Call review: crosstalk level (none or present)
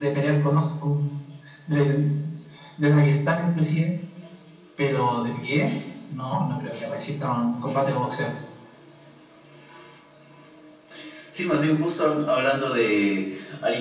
none